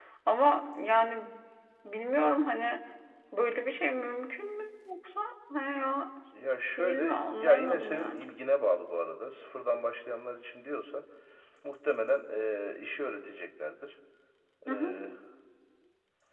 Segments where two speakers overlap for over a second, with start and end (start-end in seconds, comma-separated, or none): 6.8-8.2